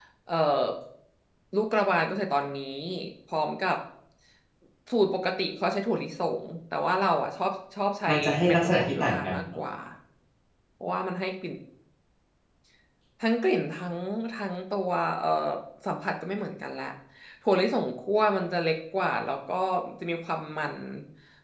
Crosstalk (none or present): present